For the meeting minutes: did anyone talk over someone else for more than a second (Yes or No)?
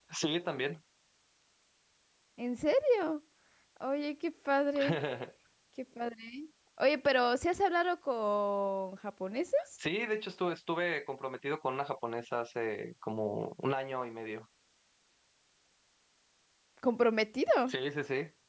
No